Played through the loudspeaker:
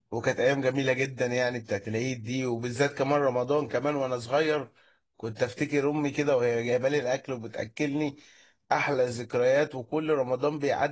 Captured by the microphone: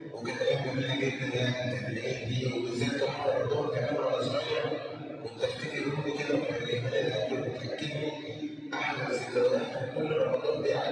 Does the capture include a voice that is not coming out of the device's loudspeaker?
No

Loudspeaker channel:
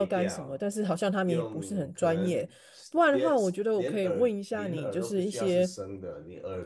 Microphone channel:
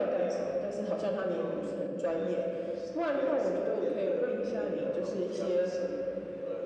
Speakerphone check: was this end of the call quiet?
Yes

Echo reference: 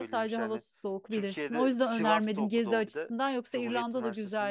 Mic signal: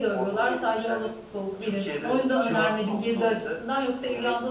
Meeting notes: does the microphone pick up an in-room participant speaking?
No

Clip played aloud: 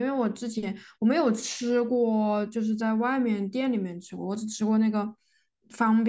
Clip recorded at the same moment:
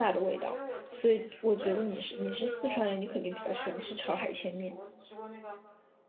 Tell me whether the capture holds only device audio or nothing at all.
No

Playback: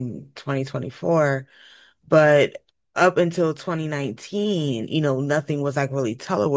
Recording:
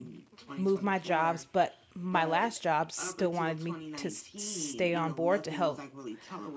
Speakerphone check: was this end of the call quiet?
No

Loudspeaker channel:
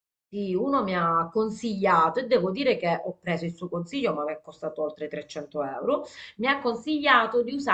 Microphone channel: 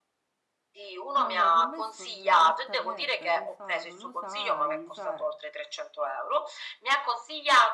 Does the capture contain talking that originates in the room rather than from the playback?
Yes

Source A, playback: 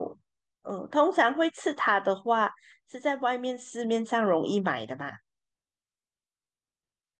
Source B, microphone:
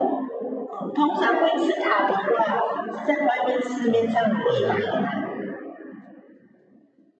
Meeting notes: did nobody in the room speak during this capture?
No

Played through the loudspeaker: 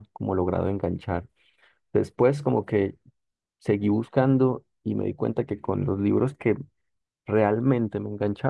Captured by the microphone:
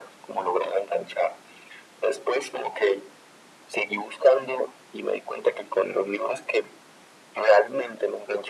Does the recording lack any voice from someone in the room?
Yes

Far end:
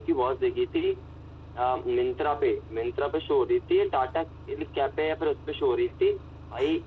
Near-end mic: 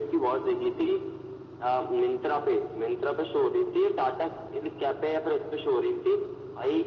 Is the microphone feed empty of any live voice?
Yes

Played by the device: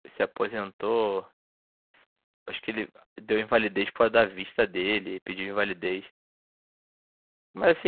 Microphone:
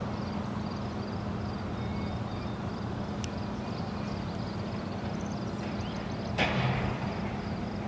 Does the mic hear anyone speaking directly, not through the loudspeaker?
No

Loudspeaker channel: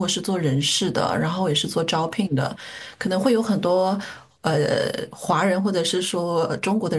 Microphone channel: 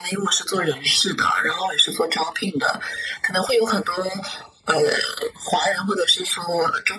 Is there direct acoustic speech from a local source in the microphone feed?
No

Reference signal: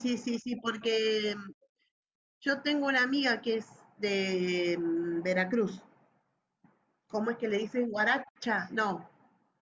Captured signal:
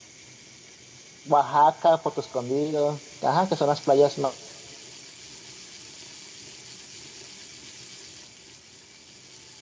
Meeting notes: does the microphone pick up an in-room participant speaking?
Yes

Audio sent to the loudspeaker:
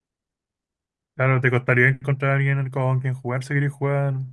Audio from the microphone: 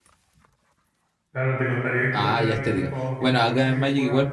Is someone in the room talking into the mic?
Yes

